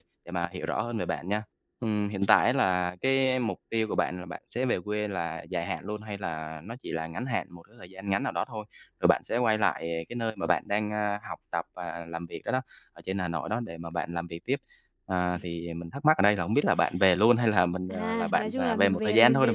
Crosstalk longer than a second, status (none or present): present